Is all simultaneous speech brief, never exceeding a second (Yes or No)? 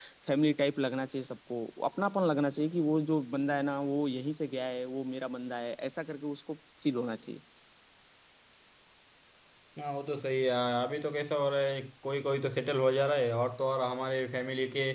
Yes